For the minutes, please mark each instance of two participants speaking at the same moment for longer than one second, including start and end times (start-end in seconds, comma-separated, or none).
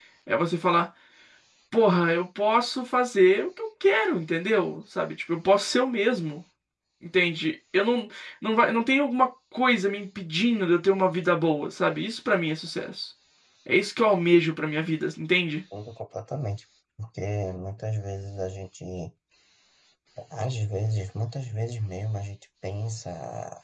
none